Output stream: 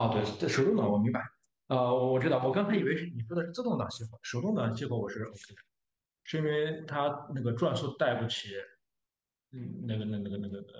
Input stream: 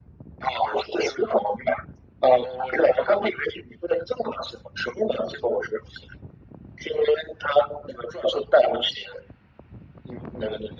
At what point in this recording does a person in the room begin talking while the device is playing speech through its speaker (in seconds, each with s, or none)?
none